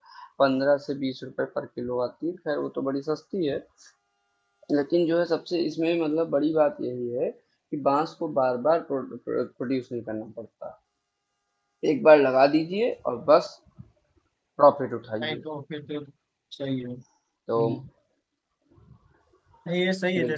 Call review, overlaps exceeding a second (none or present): none